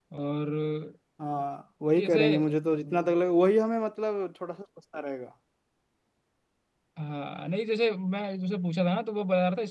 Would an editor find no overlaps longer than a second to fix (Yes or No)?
Yes